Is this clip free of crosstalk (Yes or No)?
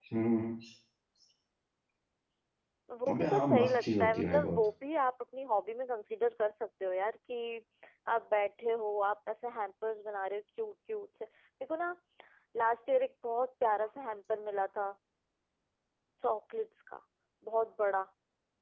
No